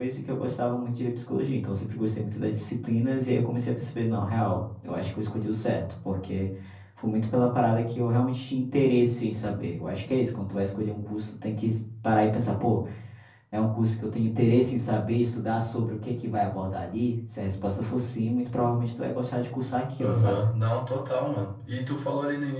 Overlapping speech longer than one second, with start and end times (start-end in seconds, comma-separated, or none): none